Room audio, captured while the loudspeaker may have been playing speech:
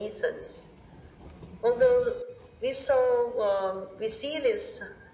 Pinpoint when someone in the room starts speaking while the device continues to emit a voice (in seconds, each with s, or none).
none